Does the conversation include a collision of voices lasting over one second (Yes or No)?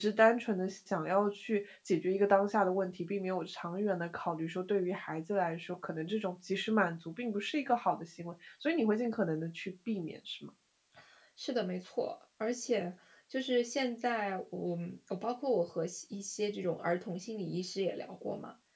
No